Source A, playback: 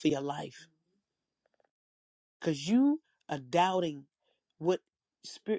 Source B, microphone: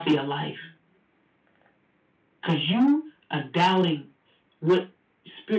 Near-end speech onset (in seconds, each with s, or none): none